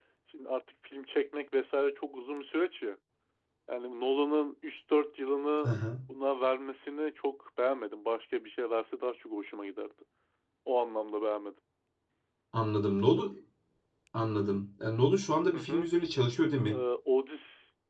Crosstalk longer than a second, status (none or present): none